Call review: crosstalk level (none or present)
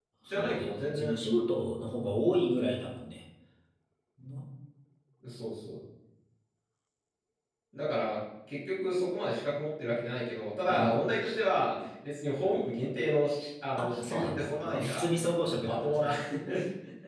present